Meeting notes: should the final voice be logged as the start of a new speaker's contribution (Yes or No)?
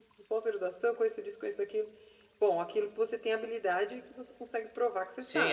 Yes